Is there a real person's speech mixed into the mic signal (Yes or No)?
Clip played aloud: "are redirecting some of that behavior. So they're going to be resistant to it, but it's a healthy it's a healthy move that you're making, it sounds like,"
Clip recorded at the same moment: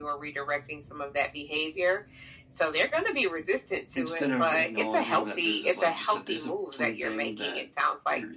Yes